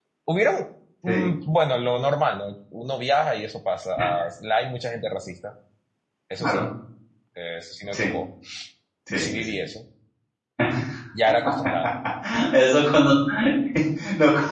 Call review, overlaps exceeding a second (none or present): none